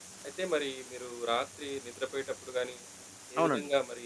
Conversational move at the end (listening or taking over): listening